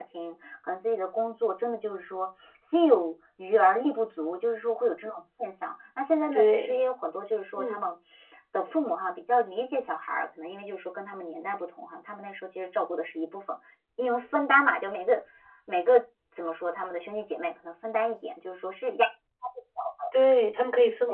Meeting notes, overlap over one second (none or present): none